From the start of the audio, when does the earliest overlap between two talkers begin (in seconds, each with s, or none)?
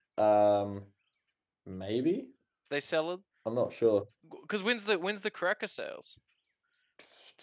none